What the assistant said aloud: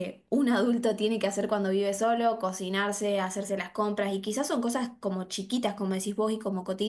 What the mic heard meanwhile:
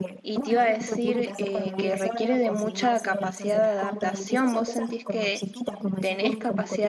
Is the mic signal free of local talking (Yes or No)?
No